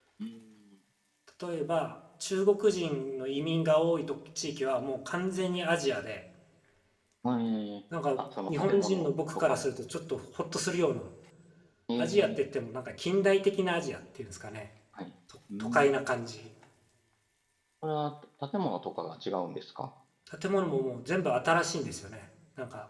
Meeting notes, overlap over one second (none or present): present